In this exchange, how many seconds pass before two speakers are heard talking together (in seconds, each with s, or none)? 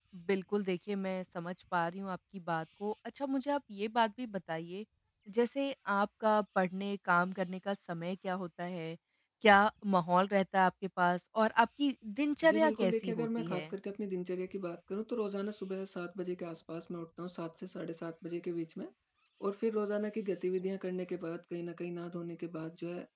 12.4 s